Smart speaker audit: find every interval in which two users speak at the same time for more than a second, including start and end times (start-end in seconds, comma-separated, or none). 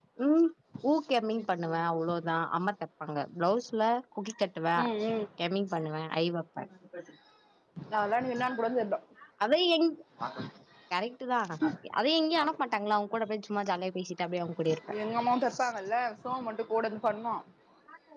none